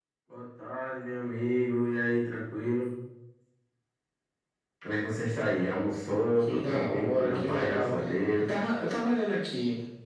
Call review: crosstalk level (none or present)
present